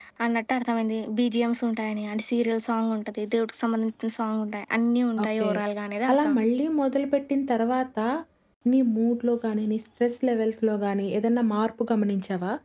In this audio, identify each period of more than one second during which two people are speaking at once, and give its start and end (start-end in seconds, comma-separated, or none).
none